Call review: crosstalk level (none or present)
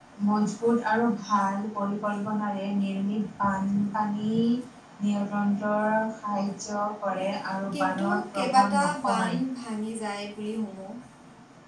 present